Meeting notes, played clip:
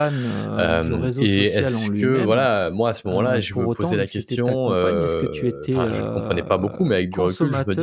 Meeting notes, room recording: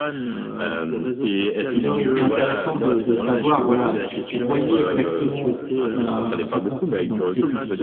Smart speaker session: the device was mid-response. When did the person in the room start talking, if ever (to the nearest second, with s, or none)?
2 s